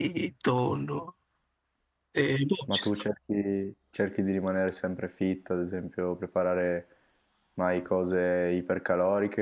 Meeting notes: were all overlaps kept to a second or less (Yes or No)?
Yes